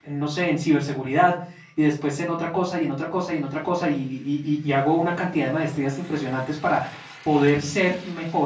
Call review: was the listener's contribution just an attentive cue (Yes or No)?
Yes